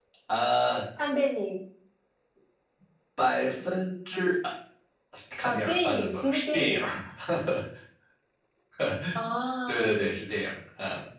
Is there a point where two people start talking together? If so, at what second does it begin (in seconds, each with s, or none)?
5.4 s